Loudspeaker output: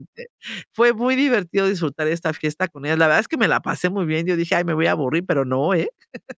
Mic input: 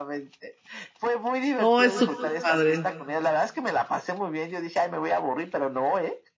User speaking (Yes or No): Yes